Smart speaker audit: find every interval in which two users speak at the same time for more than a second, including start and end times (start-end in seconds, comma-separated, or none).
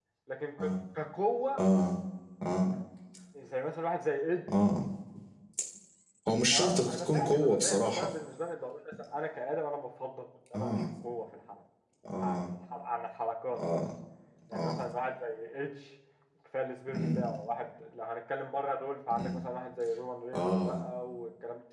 6.5-8.1